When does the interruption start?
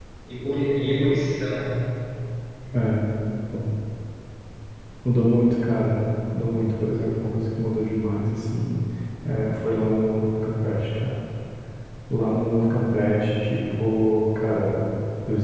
none

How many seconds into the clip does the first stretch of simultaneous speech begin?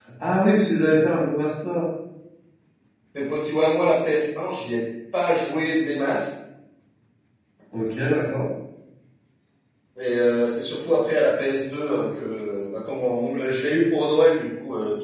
none

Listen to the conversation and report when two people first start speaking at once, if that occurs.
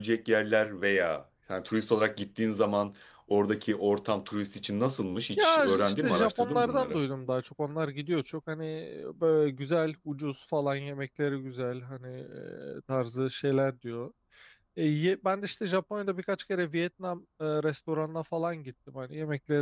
5.4 s

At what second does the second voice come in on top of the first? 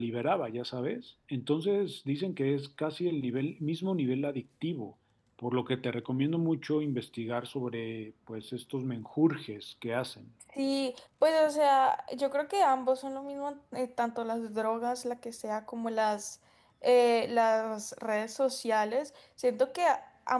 none

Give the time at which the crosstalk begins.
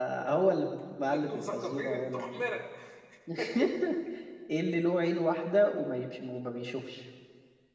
1.1 s

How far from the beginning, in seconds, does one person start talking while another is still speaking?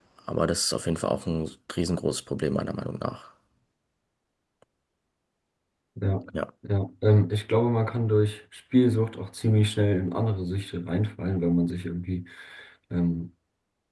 none

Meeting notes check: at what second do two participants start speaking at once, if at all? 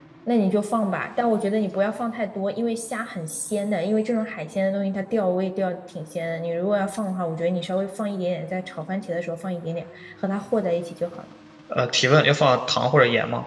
none

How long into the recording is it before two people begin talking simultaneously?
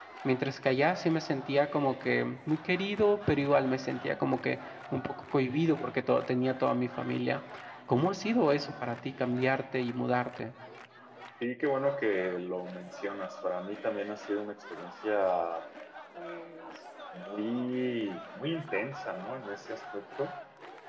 none

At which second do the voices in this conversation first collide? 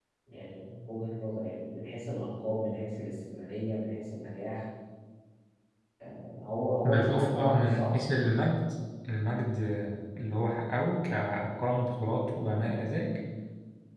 6.8 s

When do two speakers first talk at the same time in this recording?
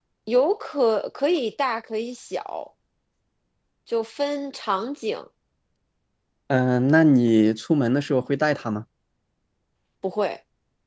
none

